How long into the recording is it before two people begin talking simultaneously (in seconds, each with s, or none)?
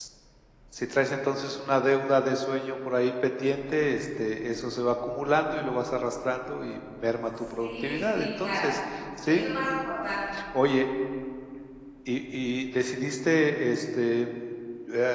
7.3 s